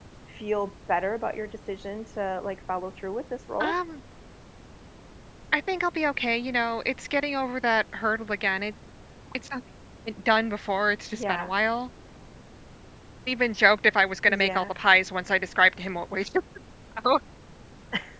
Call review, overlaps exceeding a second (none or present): none